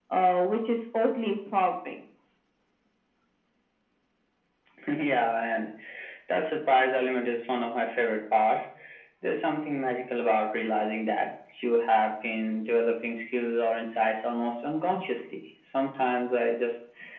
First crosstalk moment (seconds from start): none

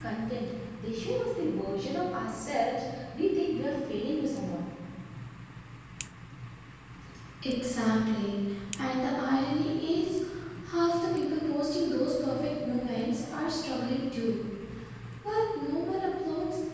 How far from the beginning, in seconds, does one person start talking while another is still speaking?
none

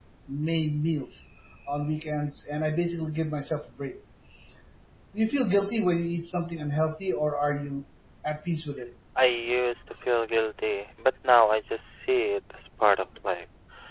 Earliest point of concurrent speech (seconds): none

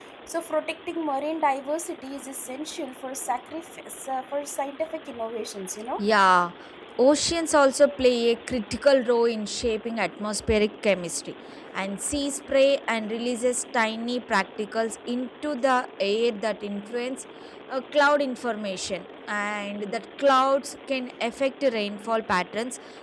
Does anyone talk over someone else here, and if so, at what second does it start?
none

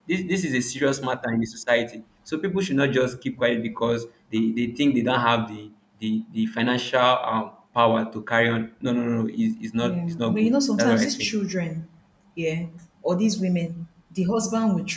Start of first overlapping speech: 10 s

